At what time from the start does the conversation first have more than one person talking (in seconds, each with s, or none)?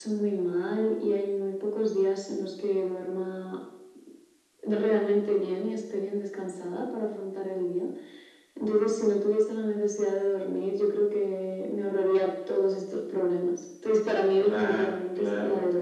14.4 s